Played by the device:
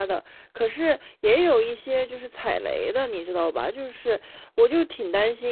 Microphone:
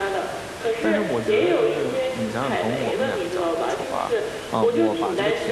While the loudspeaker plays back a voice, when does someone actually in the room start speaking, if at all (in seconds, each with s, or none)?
0.8 s